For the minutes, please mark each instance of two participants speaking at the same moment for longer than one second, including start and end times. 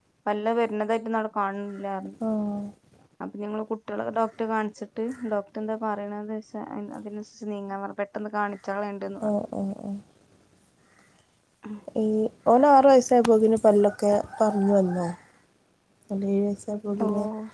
none

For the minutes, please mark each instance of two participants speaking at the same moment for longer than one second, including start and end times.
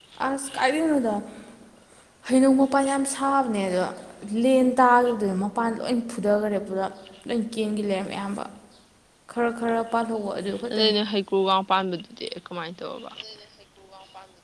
none

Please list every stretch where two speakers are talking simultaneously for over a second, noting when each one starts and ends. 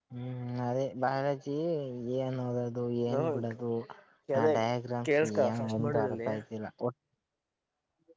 5.2-6.4

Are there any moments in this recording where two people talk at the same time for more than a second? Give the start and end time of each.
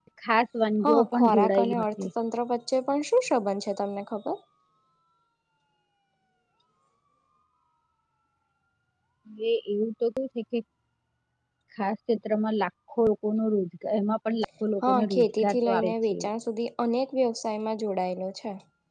0.8-2.1, 14.8-16.2

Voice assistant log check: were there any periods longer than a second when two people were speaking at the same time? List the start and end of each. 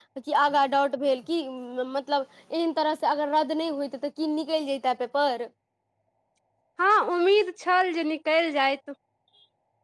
none

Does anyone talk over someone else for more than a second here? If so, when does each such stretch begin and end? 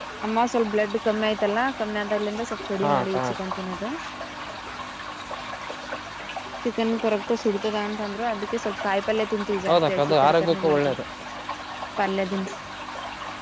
9.7-10.9

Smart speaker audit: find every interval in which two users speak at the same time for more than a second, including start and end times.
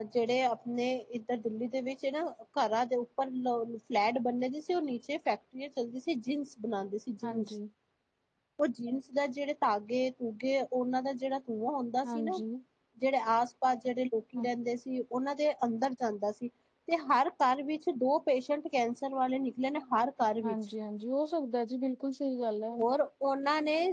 none

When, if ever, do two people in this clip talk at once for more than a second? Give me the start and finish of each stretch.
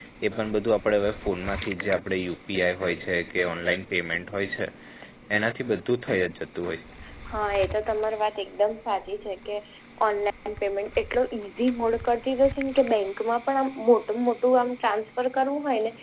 none

